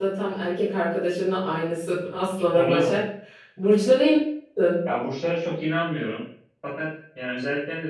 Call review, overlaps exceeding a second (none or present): none